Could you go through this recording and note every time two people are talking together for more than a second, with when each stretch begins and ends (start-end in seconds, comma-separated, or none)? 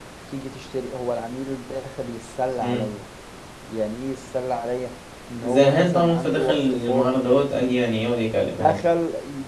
5.4-7.1